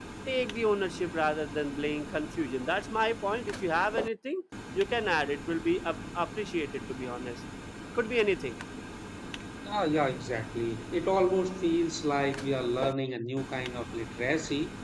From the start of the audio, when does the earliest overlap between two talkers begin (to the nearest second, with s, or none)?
none